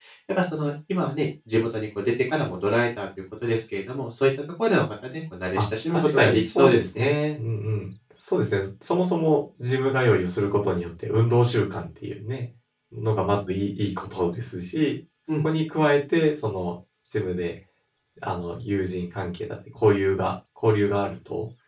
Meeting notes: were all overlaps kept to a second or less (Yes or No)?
No